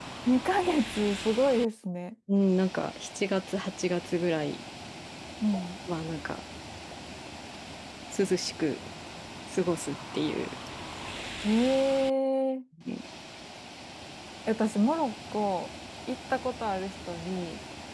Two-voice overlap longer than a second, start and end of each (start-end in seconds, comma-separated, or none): none